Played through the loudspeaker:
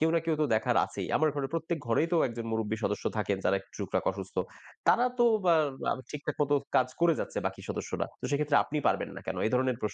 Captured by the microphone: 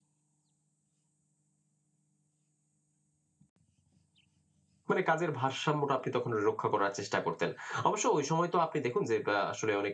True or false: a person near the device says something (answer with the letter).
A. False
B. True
B